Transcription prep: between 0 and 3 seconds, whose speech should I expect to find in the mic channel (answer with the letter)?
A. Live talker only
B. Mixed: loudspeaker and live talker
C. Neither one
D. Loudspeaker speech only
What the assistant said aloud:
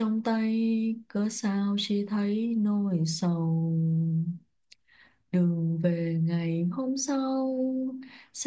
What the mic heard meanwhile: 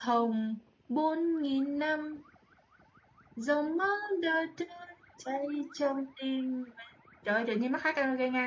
A